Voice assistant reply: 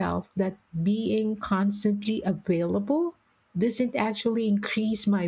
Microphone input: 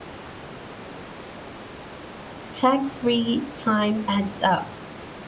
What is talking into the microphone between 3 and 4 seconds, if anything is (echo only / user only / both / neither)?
user only